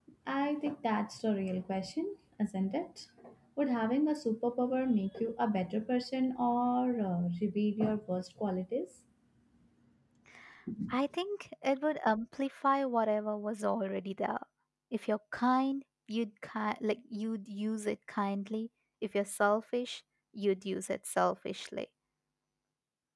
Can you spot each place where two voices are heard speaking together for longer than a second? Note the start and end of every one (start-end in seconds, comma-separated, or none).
none